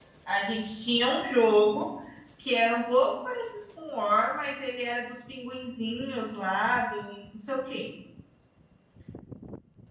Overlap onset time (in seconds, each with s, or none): none